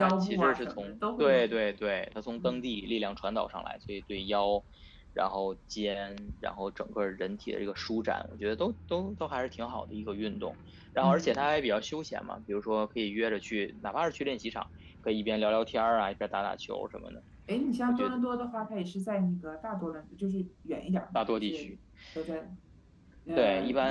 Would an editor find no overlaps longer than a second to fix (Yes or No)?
No